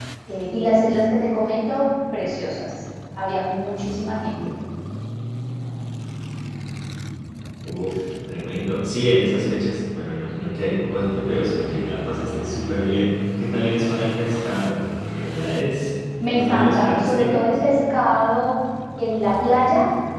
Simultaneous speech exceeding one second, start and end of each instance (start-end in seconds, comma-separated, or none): 16.3-17.6